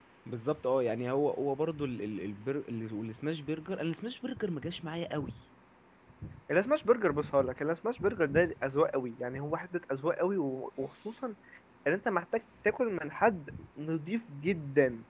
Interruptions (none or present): none